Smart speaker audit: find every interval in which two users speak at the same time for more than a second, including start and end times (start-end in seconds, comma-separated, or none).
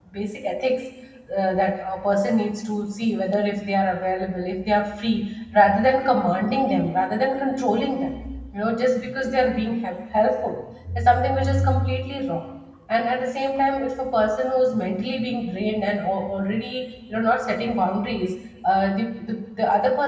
none